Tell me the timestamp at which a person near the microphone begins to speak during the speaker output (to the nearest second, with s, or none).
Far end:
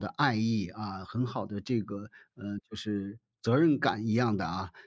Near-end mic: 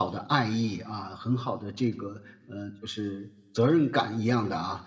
none